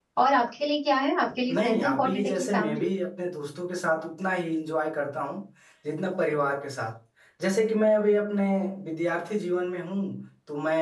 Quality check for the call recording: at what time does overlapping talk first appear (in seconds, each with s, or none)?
1.5 s